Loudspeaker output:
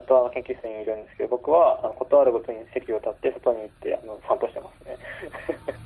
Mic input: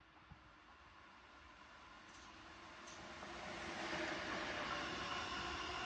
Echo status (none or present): none